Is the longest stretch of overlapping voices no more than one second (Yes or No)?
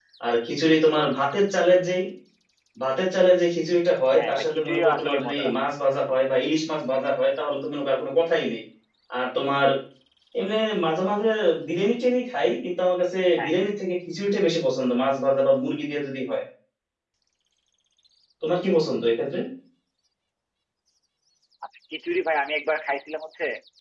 No